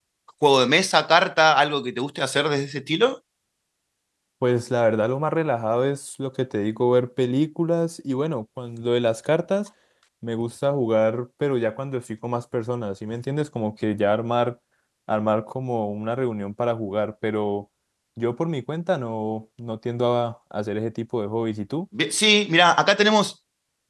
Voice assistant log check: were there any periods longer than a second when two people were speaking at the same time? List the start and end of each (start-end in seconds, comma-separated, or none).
none